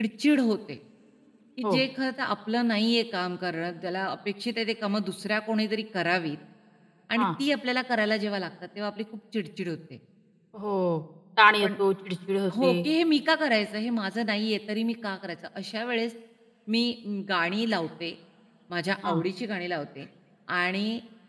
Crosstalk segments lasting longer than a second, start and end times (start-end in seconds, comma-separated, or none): none